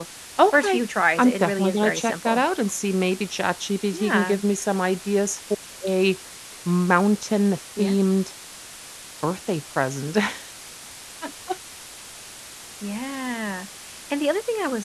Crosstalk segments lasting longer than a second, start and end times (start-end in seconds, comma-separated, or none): 1.2-2.4